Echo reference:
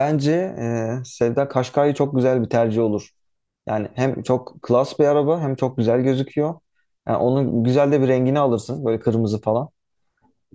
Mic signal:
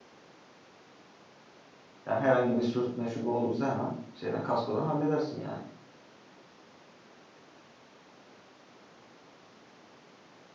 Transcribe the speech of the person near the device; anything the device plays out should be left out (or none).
Yani herhangi bir sürtme şu bu olursa hemen şeyden kaskodan halledersin yani.